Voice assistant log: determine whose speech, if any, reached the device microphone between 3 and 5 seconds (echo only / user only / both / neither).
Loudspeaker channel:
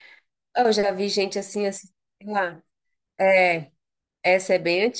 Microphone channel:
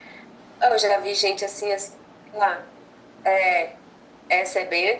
echo only